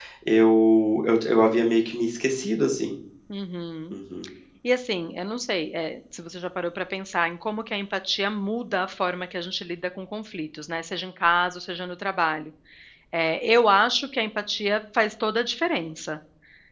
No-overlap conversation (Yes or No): Yes